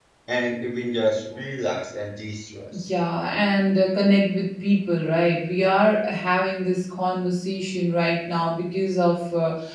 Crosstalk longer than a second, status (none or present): none